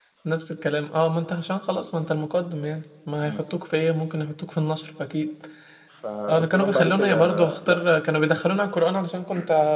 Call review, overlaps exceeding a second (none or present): present